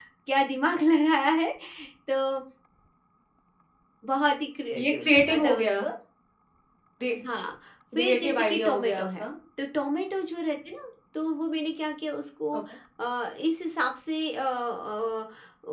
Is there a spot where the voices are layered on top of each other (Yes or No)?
Yes